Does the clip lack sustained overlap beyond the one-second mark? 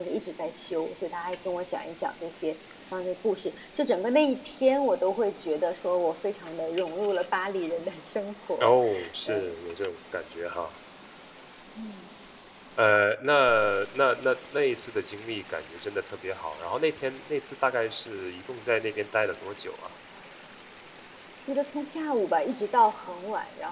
Yes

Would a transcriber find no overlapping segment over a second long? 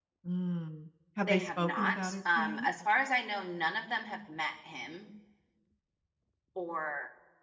No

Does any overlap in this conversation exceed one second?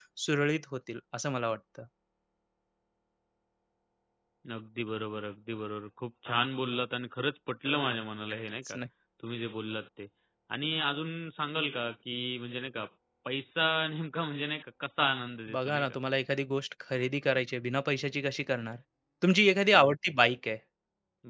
No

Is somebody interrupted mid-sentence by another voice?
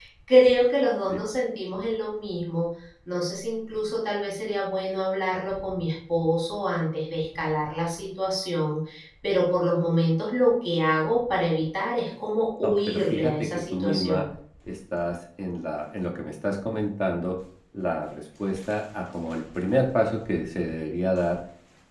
Yes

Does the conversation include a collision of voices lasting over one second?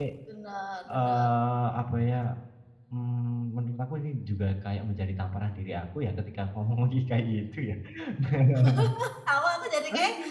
No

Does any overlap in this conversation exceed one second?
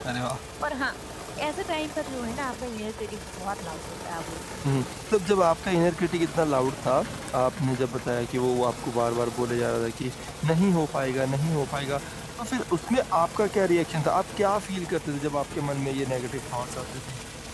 No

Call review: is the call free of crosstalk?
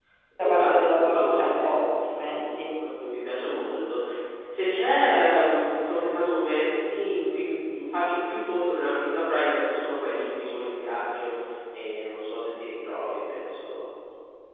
No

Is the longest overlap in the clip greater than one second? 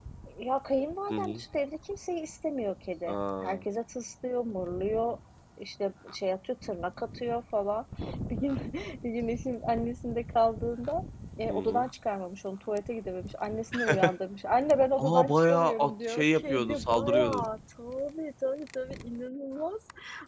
Yes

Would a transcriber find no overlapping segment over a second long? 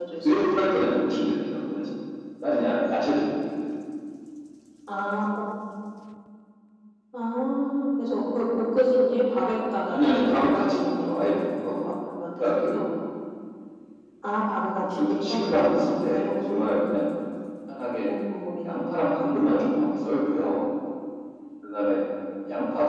No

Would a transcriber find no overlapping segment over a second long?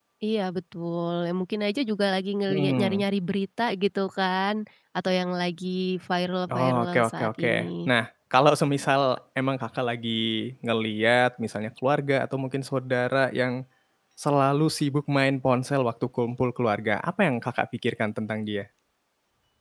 No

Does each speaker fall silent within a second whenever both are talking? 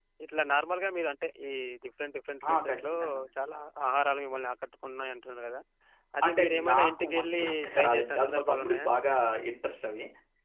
No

